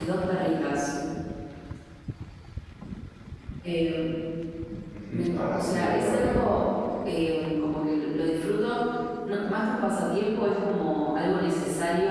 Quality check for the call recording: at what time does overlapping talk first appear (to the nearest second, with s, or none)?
5 s